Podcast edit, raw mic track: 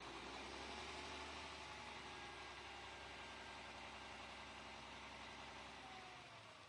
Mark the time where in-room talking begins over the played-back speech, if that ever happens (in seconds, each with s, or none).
none